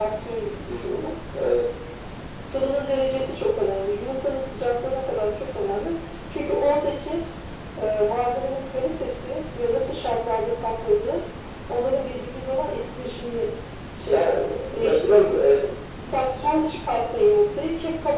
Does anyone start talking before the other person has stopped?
Yes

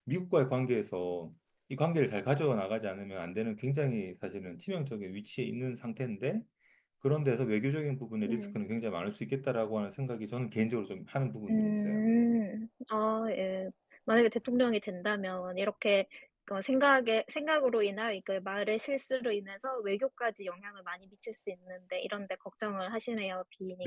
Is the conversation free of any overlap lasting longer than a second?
Yes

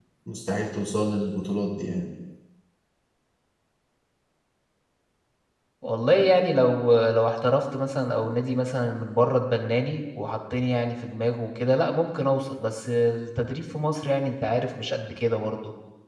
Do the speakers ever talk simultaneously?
No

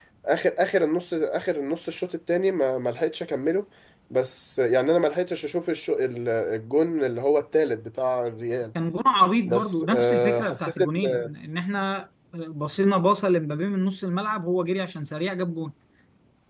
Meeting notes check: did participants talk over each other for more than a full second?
Yes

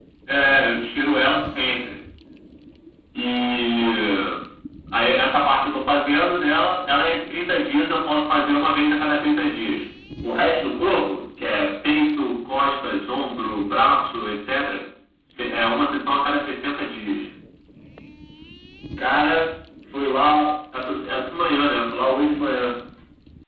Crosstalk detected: No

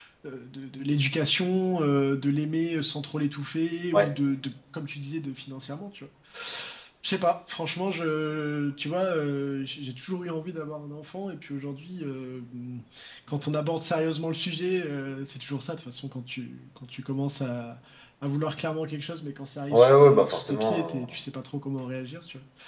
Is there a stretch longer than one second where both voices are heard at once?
Yes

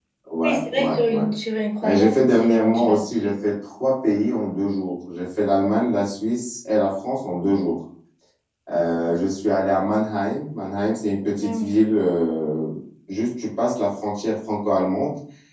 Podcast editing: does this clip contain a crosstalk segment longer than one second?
Yes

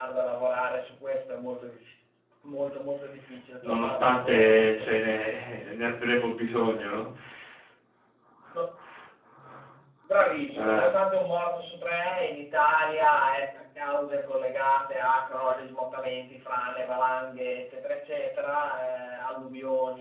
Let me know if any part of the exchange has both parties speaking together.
Yes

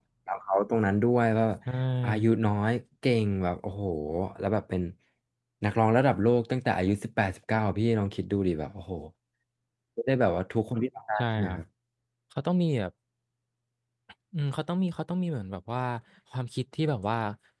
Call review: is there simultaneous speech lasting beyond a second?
No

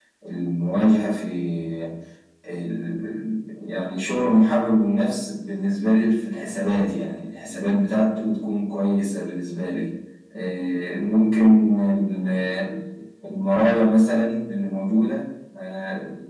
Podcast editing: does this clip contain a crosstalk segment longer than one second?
No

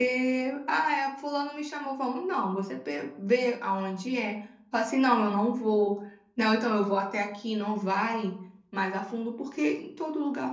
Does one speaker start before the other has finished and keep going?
No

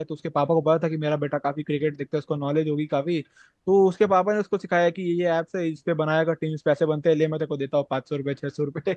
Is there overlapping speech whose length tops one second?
No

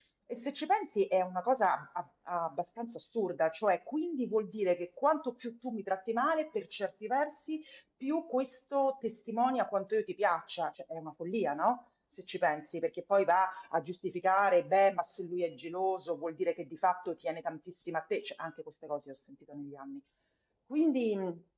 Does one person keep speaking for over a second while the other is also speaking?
No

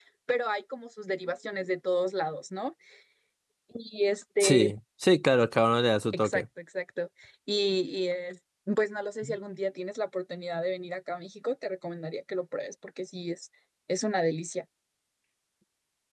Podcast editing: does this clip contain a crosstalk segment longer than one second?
No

